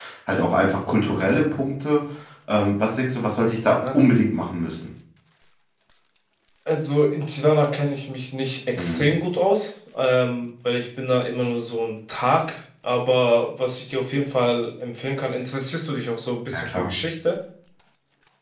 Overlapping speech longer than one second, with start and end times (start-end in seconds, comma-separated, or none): none